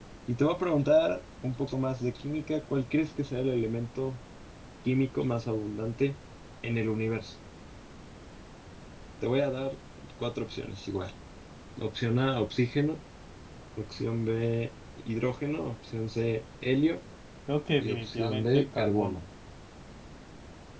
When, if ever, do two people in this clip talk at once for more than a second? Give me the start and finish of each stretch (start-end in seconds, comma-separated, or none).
17.8-19.2